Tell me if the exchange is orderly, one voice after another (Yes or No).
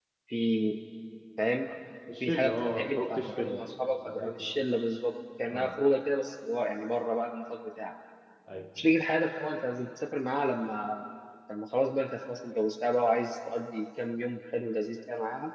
No